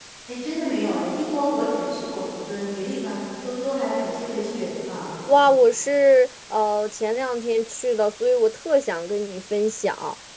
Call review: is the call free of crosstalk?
Yes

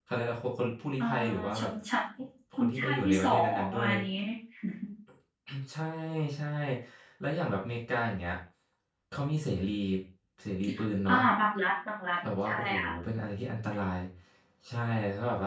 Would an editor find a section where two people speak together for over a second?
Yes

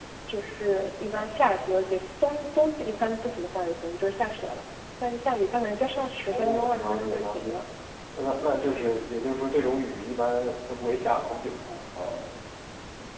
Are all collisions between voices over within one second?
No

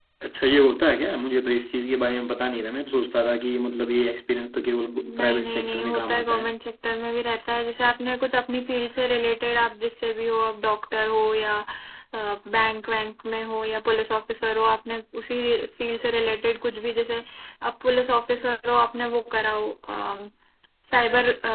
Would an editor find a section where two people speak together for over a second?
Yes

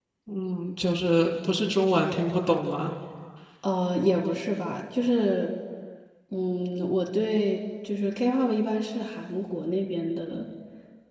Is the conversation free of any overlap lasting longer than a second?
Yes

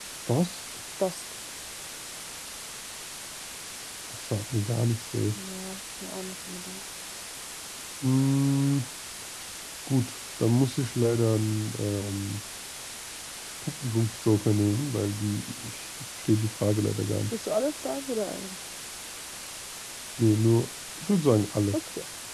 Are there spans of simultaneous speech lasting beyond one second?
No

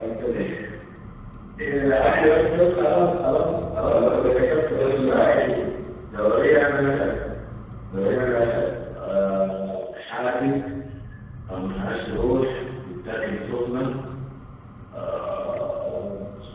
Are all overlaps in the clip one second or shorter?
No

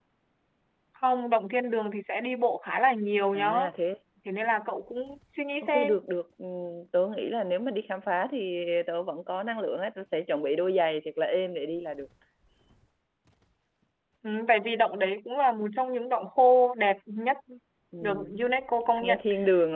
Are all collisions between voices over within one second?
Yes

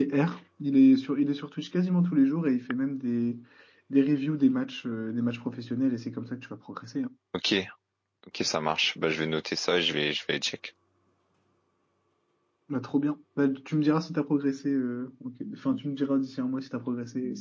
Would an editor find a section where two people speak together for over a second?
No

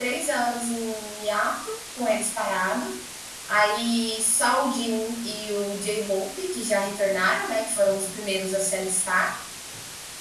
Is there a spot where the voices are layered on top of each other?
No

